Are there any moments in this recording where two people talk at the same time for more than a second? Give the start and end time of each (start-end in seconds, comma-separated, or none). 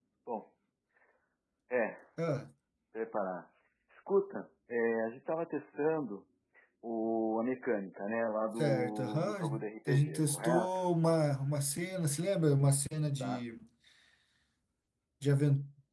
8.6-10.8